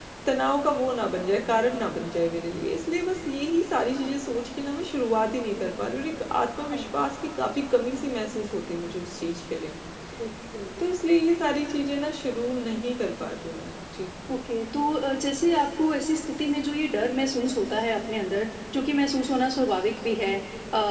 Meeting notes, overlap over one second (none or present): none